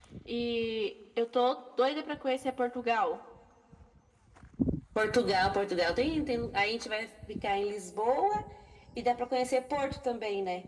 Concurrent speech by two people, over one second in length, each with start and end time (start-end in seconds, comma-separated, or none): none